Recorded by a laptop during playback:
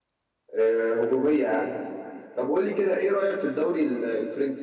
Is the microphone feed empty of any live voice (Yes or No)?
No